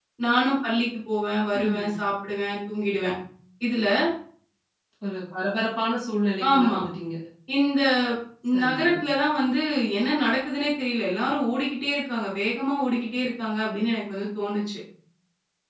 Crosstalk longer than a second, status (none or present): none